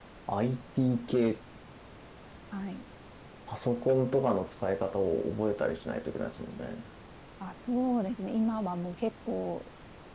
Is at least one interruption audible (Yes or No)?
No